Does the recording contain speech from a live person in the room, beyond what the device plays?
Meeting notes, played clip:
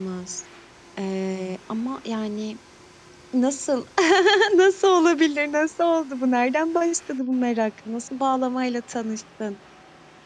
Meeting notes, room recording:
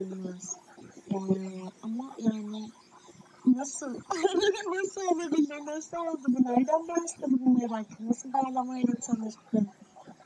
No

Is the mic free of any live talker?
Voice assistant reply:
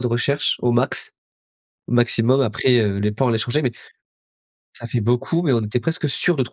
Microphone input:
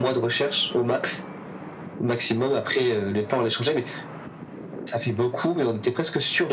Yes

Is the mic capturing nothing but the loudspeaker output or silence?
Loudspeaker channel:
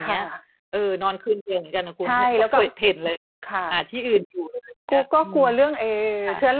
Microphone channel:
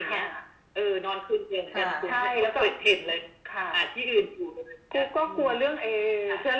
No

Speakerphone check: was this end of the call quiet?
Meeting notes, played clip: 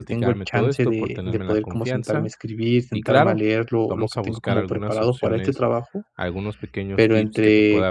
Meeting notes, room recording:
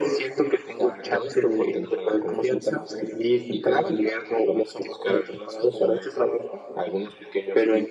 Yes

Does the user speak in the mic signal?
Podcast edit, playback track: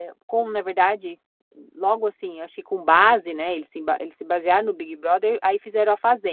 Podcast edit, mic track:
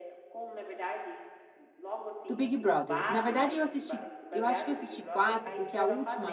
Yes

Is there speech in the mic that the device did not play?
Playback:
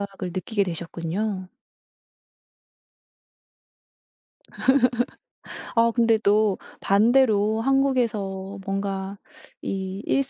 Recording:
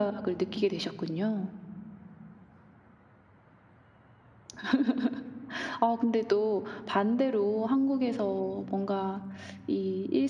No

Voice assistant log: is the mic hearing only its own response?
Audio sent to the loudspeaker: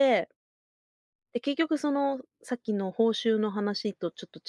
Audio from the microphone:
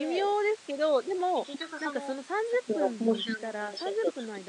No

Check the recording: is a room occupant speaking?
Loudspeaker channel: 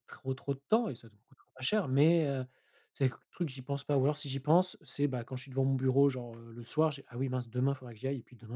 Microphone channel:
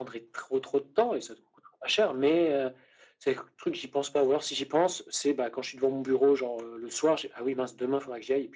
No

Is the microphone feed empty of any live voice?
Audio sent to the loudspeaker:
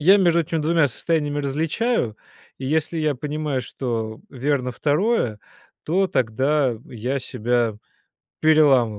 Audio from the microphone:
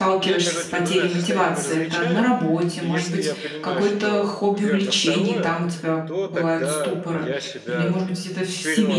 No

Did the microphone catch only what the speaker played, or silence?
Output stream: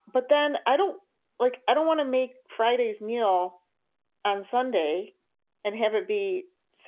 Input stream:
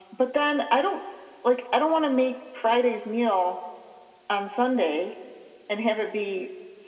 Yes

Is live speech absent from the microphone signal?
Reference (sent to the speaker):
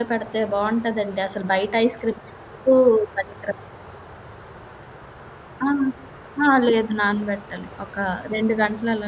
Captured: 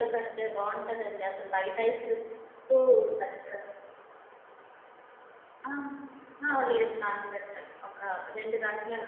Yes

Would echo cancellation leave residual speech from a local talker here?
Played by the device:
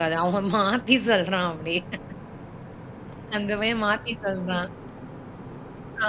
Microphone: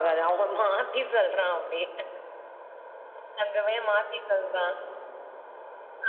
No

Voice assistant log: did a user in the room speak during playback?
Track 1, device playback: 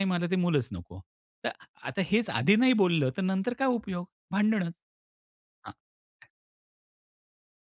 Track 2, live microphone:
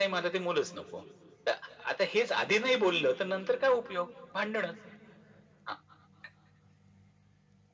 No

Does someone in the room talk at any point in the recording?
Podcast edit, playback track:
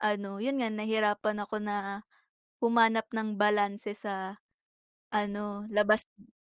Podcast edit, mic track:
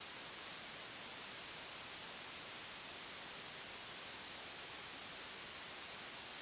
No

